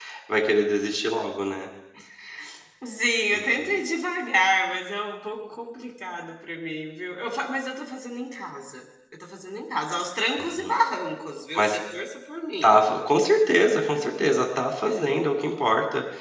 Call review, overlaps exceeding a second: none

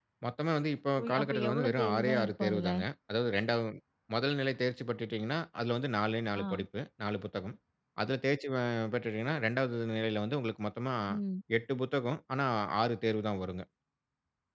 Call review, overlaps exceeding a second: present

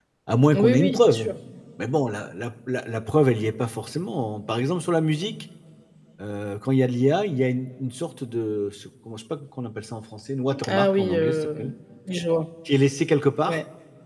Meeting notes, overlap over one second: present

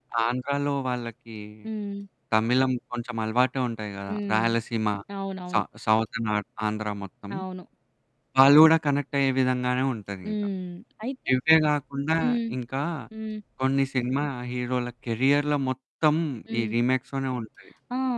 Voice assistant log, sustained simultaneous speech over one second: none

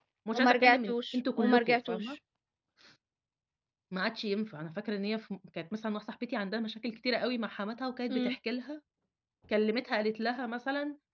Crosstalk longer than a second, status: present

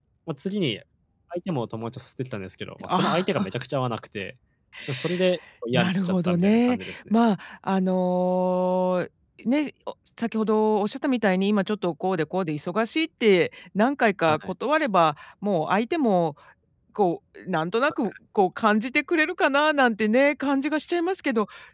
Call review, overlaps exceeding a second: present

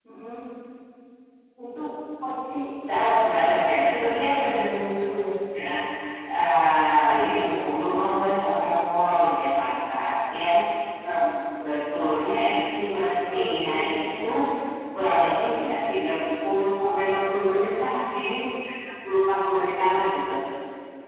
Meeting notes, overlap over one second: present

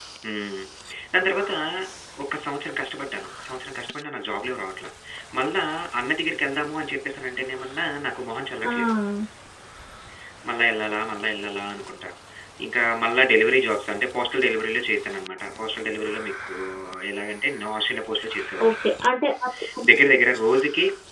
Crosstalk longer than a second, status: none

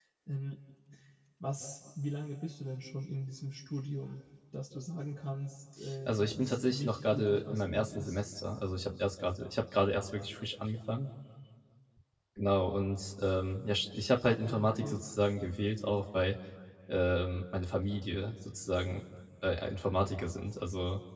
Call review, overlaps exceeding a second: present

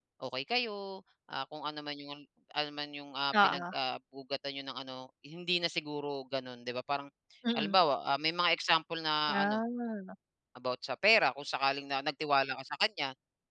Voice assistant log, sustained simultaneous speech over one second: none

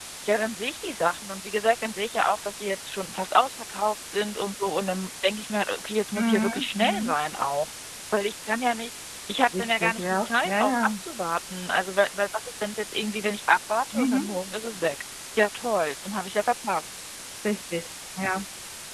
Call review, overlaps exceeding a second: present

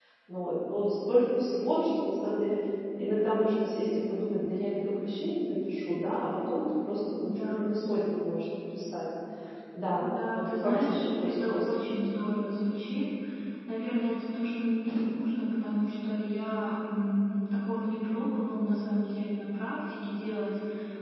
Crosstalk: present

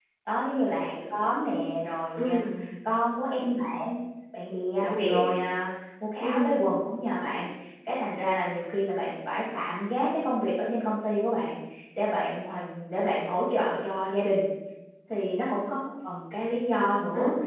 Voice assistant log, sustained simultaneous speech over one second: none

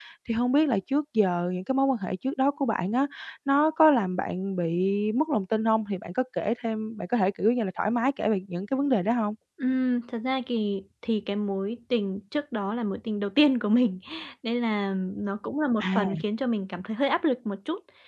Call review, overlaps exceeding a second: none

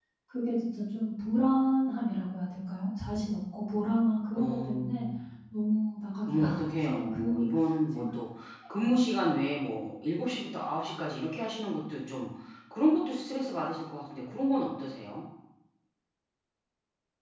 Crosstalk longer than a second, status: present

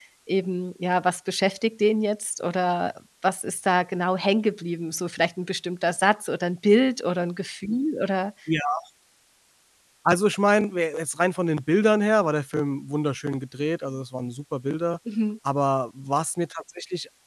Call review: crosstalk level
none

